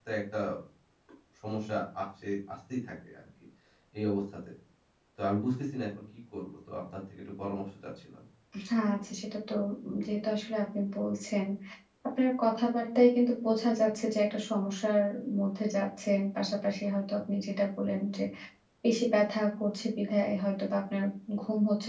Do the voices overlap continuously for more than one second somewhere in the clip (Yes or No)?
No